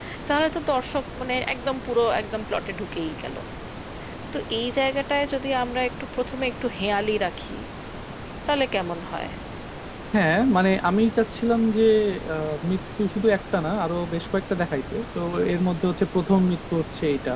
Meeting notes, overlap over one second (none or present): none